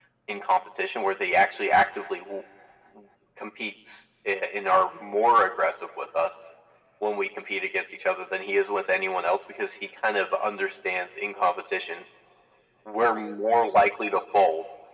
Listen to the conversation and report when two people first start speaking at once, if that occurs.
none

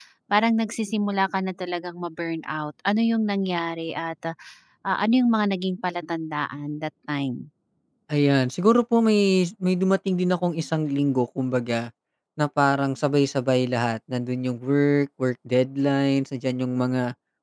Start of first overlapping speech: none

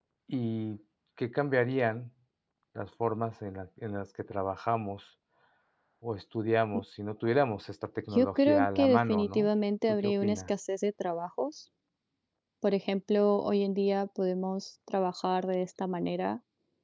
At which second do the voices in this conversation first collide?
8.1 s

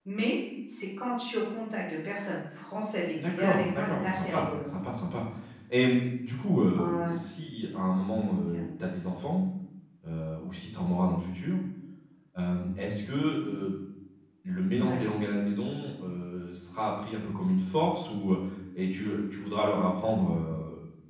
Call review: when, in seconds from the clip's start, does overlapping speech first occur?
3.2 s

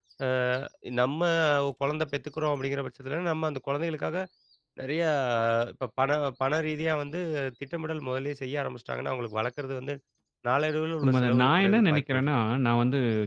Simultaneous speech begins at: 11.0 s

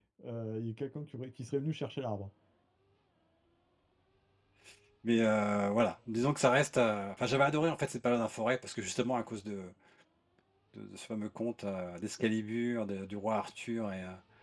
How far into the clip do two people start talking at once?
none

